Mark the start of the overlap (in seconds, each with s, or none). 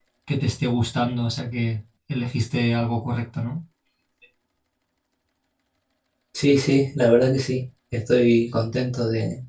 none